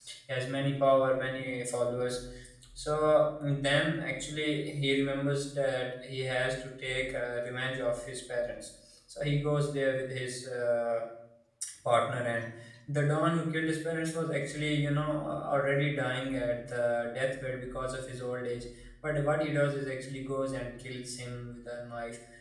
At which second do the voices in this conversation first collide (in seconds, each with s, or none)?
none